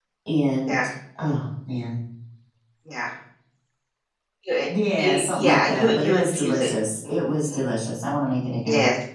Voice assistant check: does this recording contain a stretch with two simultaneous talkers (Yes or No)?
Yes